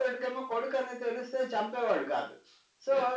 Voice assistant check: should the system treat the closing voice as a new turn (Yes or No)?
No